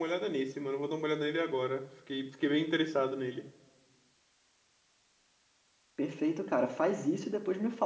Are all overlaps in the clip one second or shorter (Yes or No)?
Yes